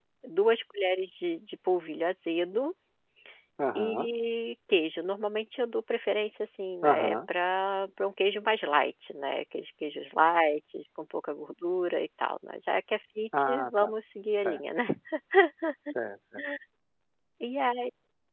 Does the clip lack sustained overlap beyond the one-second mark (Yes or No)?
Yes